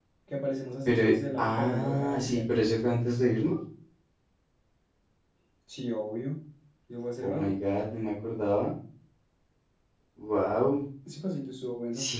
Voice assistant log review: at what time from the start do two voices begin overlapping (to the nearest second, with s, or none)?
1 s